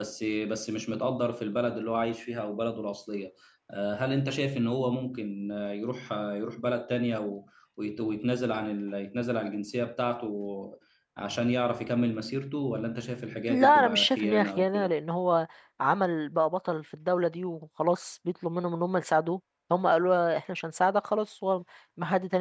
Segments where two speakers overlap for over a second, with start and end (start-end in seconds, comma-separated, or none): 13.5-14.9